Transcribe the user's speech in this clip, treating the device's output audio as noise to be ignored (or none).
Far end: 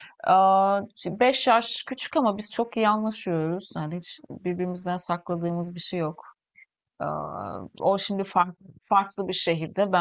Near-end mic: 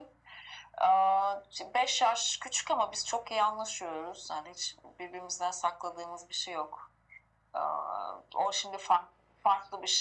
none